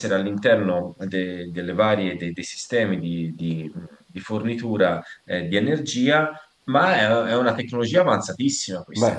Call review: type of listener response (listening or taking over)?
listening